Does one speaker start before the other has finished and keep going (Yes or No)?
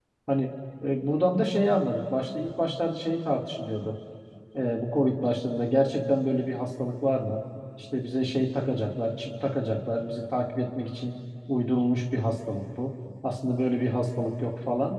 No